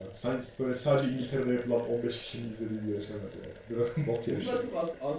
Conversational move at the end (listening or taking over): taking over